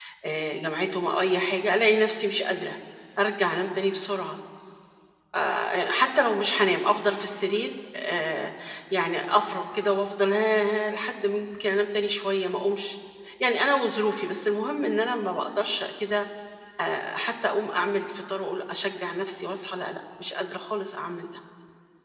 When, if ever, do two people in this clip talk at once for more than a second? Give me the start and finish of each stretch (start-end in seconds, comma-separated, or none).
none